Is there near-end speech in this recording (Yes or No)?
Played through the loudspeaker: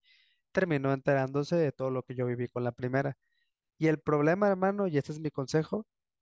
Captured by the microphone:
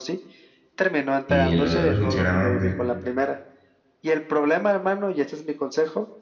Yes